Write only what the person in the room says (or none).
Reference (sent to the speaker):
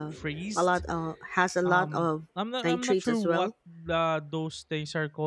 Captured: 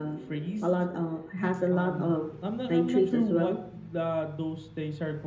mm-hmm,